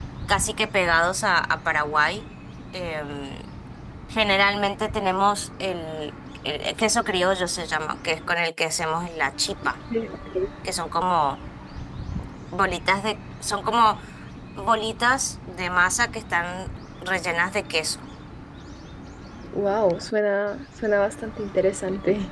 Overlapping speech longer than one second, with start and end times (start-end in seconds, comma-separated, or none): none